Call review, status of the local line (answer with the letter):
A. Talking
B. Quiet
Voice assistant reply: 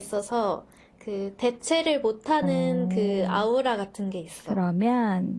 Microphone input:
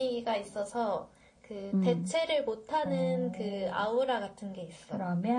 A